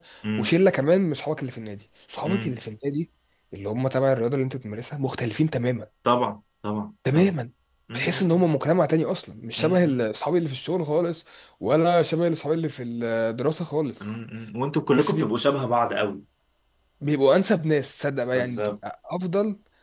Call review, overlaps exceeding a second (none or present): none